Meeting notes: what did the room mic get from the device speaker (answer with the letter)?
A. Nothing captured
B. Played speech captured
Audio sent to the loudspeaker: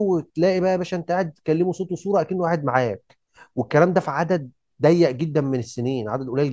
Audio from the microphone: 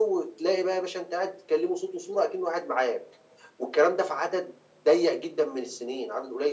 B